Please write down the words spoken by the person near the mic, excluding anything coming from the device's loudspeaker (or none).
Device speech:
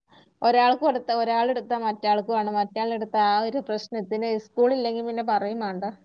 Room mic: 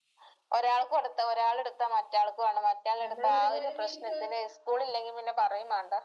നമ്മളൊരു ഒരു ഒരു മിനിറ്റ്